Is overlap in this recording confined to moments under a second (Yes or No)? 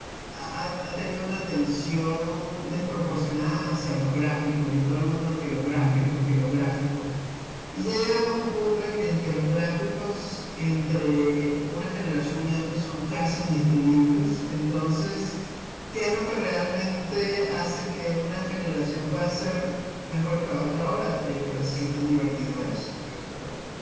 Yes